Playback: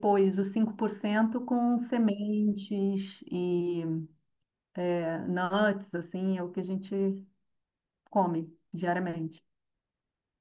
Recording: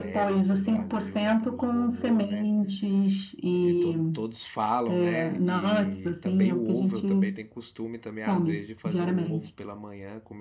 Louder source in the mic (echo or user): echo